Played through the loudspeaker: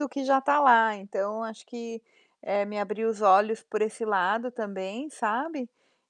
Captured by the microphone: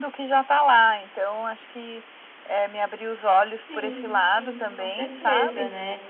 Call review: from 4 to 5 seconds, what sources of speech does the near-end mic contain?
both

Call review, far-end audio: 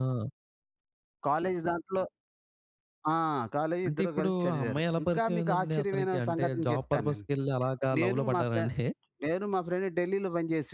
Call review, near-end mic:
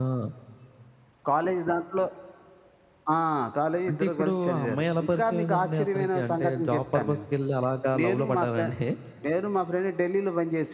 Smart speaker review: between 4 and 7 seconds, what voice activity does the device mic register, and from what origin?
echo only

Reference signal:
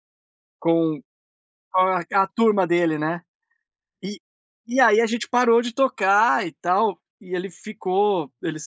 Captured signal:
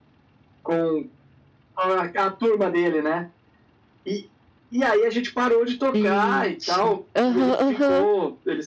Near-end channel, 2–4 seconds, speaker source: echo only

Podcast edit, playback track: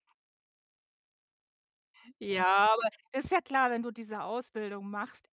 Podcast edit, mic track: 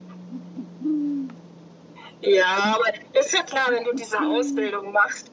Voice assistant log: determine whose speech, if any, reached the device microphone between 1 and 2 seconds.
neither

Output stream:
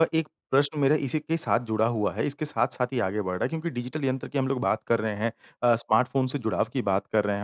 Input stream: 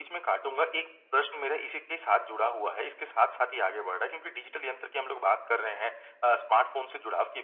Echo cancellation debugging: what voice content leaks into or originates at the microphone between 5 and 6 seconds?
echo only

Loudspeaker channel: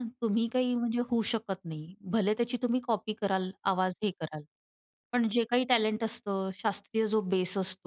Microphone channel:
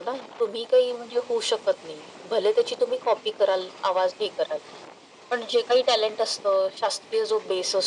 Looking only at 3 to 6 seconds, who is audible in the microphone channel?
echo only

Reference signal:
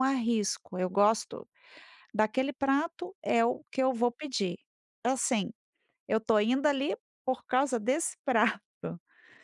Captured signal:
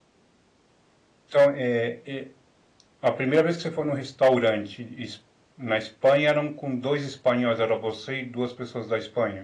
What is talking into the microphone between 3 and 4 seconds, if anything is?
user only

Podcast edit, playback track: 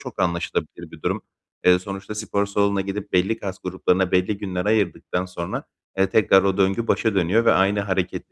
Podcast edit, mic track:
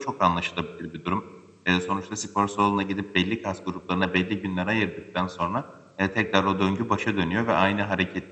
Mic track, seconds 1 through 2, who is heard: echo only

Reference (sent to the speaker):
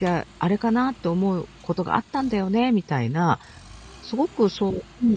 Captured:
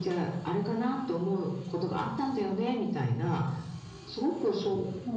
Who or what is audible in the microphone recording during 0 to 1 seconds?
echo only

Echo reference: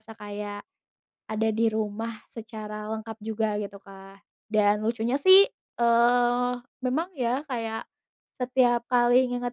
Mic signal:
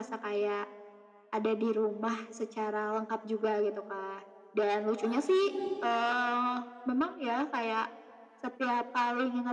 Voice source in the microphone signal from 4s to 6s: both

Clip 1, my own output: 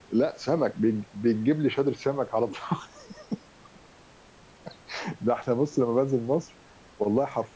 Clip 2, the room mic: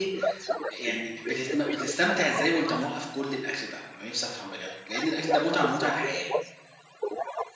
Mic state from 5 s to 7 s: both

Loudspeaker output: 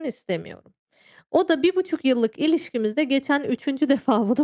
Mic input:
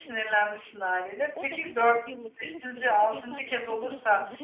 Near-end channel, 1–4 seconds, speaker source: both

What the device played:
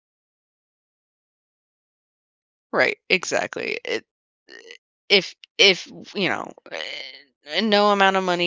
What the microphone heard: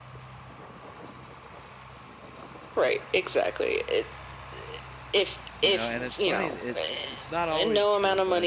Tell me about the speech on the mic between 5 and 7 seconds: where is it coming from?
both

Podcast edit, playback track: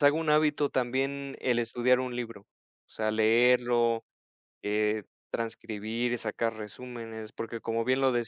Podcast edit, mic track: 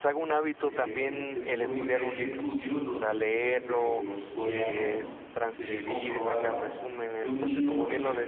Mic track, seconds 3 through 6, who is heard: both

